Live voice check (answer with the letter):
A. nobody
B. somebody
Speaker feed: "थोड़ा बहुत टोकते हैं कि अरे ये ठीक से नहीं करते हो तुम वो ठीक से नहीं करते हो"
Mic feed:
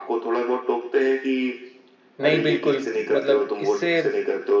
B